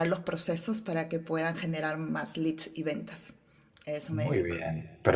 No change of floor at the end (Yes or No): No